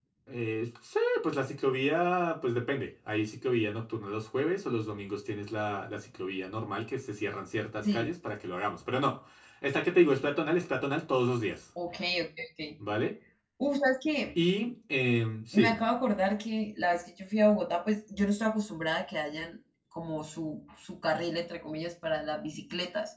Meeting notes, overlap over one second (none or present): none